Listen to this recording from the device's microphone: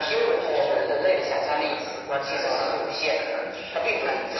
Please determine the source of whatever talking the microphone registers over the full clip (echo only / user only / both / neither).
echo only